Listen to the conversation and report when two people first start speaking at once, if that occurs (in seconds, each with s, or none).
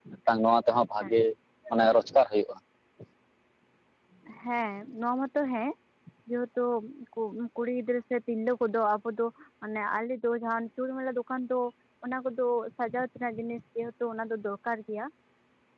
none